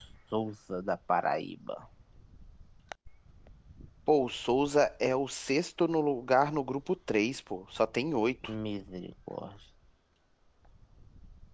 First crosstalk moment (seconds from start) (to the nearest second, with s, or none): none